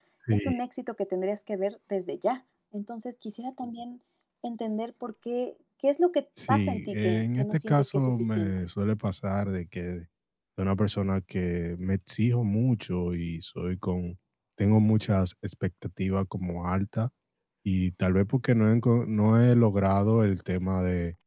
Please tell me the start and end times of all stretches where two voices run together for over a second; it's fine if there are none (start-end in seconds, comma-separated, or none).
6.5-8.5